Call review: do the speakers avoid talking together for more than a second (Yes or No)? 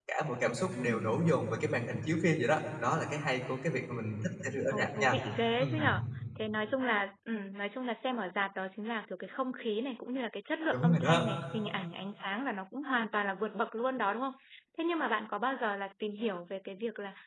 Yes